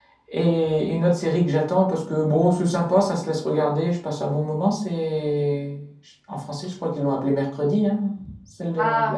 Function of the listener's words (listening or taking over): taking over